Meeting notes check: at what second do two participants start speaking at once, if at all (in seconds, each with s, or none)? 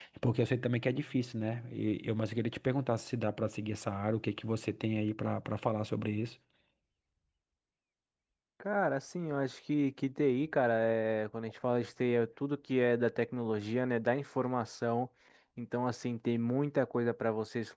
none